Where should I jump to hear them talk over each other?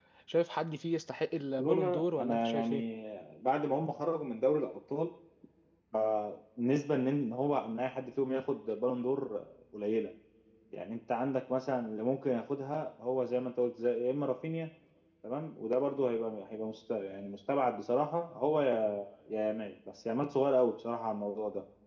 1.6 s

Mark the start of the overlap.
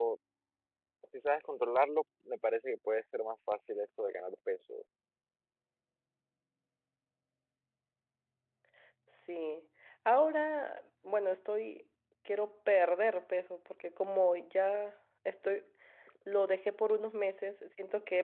none

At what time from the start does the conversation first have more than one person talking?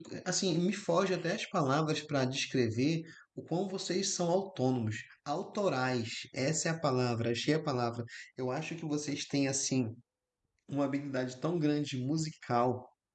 none

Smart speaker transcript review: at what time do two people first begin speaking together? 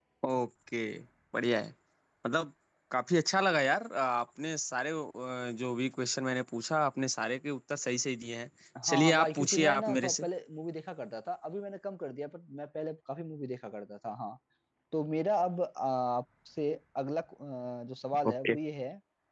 8.9 s

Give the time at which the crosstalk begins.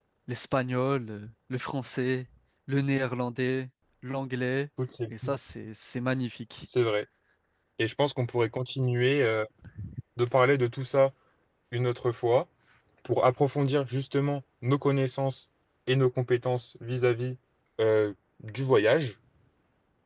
none

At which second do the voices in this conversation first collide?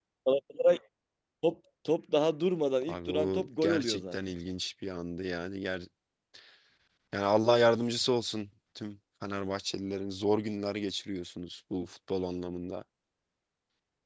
2.8 s

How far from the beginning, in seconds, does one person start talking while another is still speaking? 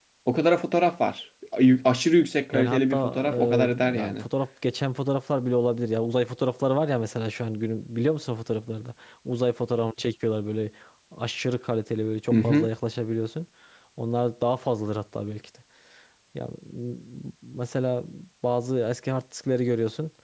2.5 s

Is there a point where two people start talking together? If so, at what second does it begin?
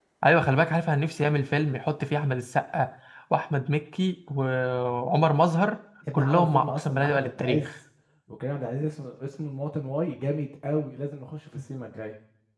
6.1 s

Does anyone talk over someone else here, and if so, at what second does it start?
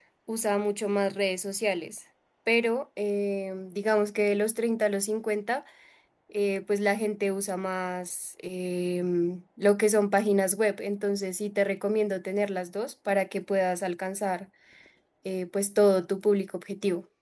none

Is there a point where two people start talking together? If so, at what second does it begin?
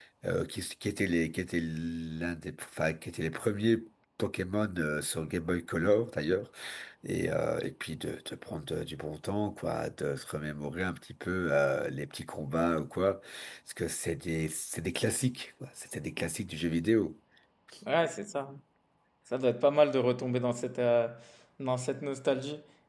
none

